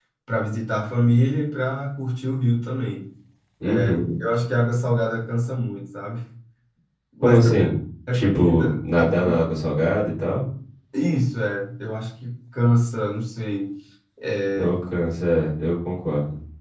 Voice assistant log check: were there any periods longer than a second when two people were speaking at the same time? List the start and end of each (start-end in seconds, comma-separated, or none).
8.1-9.4